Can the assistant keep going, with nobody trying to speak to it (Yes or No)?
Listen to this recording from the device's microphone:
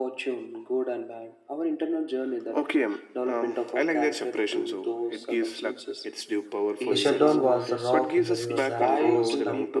No